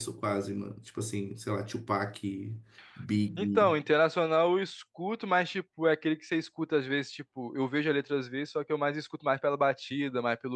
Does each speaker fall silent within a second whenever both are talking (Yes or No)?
Yes